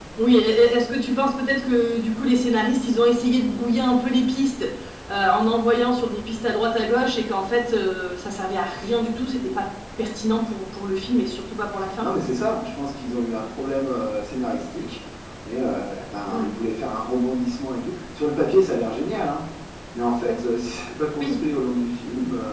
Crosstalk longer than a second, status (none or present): none